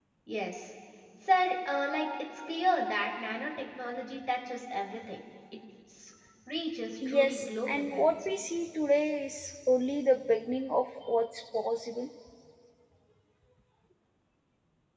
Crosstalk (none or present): present